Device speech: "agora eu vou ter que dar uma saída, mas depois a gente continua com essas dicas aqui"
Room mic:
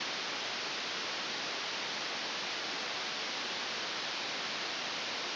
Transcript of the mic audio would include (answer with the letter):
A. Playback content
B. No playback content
B